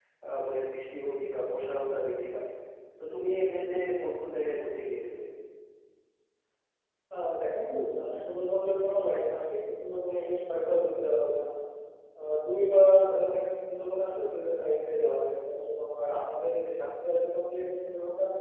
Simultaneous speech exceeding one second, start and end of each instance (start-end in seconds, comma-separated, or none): none